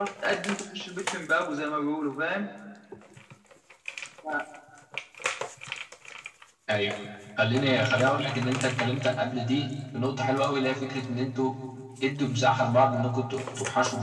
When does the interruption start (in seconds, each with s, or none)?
none